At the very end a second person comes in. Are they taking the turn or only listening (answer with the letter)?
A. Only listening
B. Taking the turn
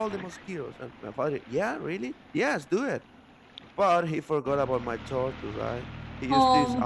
A